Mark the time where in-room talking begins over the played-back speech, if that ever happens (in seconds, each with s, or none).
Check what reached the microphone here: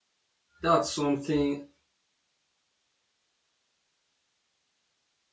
0.6 s